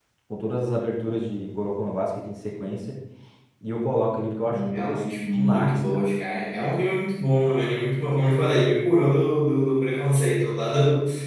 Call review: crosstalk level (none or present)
present